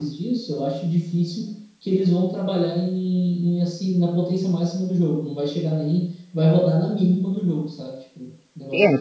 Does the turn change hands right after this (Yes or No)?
Yes